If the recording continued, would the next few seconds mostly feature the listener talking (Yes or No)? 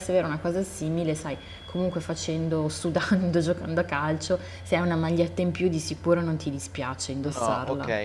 Yes